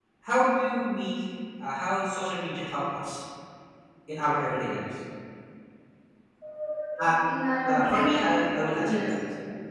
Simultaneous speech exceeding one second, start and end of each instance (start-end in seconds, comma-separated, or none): 7.6-9.1